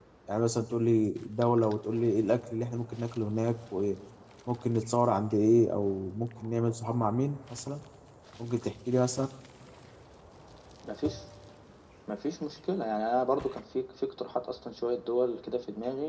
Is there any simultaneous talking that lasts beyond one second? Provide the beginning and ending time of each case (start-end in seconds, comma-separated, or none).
none